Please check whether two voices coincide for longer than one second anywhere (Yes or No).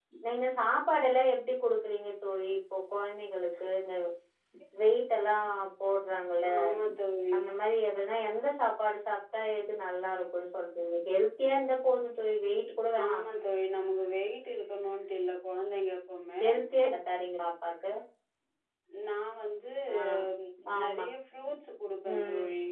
No